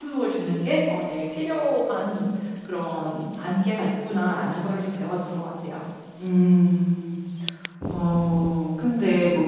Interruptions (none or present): none